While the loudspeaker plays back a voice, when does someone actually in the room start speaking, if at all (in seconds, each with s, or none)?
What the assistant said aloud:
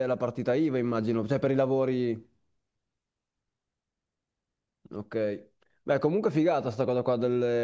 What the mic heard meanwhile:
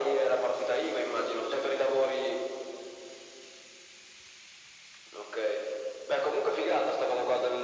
none